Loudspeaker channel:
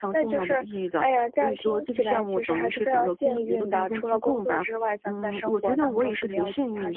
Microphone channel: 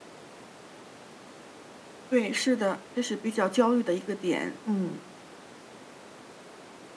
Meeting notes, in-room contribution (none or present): present